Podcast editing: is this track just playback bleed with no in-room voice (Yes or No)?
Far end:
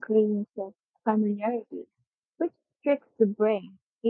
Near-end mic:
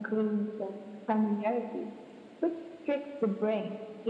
Yes